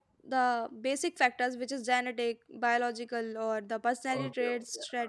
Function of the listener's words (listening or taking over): taking over